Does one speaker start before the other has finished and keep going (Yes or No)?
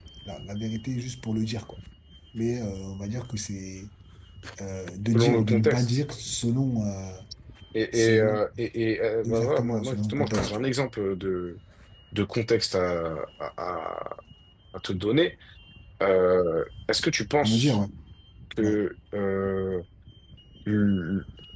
Yes